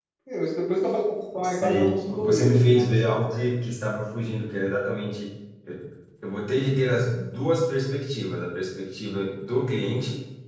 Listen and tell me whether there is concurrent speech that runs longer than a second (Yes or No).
Yes